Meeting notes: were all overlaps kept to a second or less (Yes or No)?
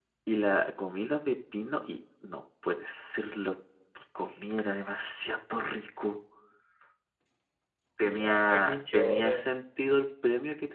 No